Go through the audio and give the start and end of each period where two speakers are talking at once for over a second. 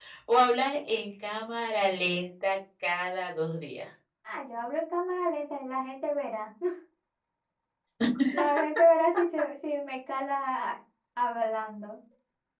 none

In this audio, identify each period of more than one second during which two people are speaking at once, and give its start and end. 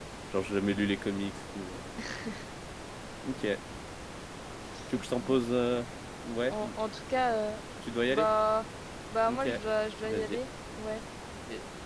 none

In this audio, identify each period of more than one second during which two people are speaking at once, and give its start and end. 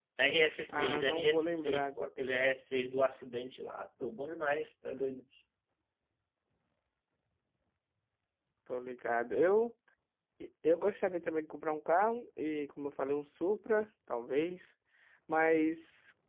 0.7-2.1

